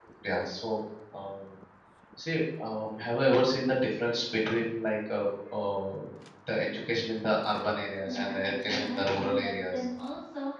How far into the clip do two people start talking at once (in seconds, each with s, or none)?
8.1 s